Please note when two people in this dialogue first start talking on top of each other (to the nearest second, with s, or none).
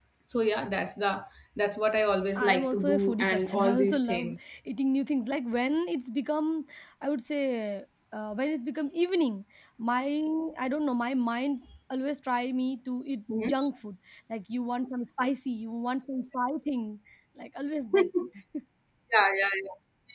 2 s